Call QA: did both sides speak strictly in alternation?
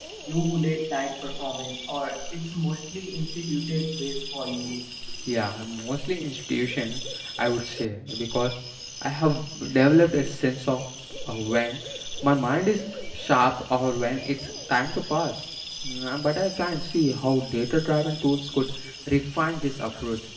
Yes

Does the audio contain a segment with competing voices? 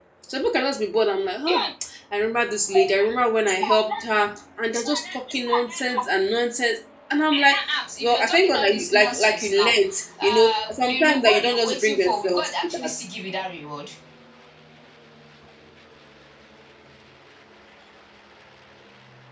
Yes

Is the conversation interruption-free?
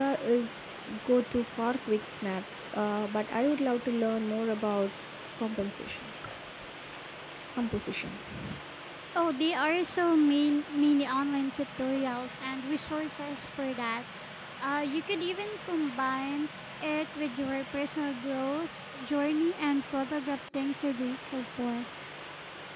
Yes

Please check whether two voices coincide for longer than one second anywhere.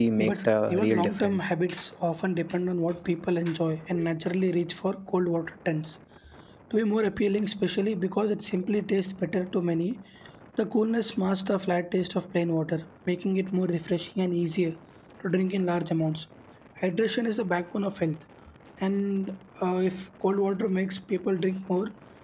Yes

